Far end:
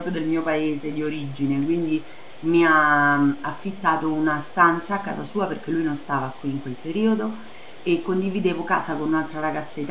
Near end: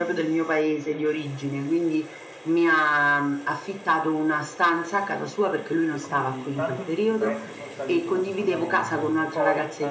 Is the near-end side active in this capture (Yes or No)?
Yes